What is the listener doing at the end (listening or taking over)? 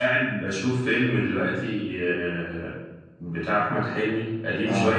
listening